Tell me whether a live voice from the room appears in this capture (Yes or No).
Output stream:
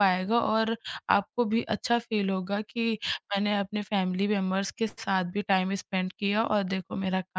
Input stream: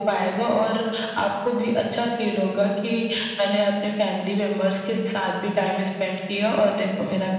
No